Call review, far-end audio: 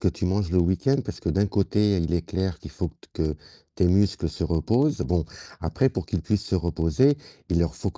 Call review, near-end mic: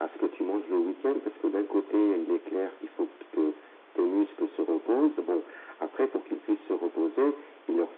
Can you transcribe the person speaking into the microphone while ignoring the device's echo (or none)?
none